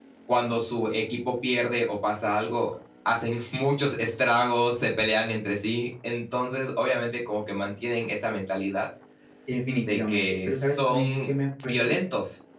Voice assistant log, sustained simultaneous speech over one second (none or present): present